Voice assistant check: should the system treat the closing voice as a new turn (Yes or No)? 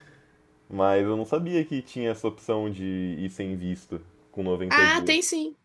Yes